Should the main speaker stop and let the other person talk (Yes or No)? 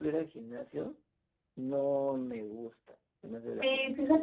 Yes